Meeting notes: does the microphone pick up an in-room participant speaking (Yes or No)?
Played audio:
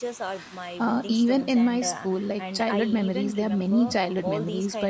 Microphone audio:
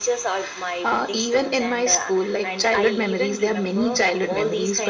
No